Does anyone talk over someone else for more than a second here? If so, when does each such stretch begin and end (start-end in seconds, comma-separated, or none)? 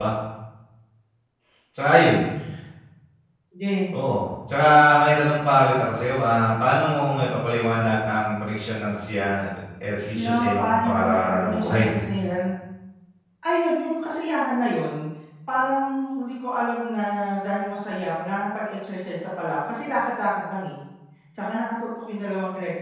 10.1-11.8